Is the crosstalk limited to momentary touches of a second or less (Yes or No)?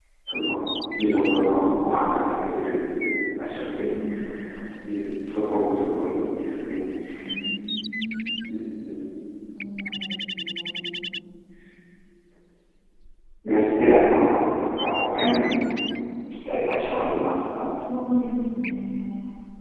Yes